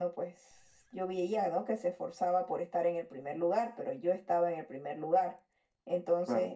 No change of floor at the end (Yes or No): Yes